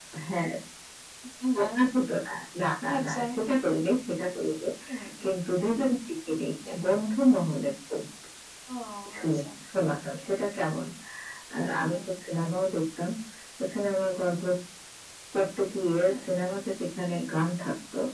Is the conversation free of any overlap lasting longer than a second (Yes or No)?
Yes